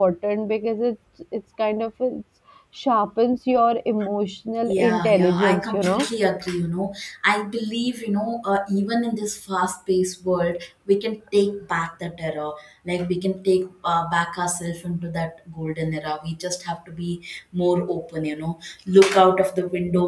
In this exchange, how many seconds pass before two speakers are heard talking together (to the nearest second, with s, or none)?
5 s